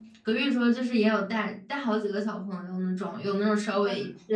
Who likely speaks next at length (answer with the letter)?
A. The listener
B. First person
B